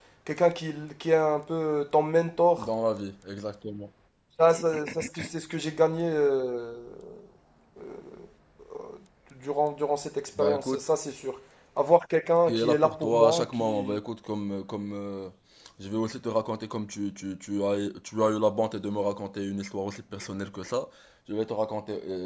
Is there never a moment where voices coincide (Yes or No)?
No